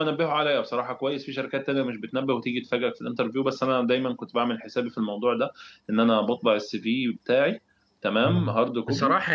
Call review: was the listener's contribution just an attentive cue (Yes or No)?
No